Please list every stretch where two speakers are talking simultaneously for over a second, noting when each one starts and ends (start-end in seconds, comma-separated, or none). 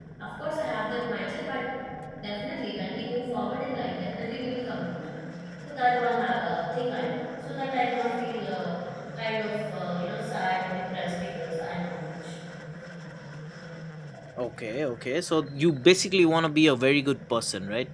none